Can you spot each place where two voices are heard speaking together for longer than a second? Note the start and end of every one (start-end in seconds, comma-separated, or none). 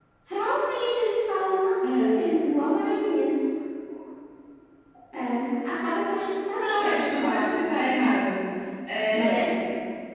6.6-8.1